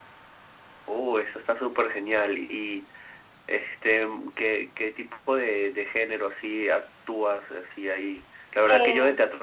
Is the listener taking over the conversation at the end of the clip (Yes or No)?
No